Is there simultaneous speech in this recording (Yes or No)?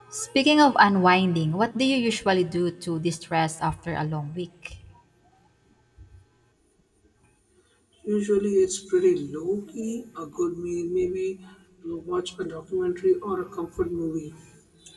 No